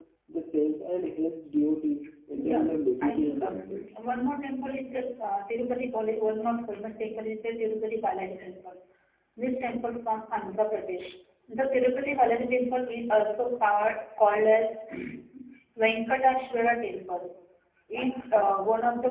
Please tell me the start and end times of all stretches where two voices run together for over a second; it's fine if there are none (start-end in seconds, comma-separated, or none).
2.4-3.8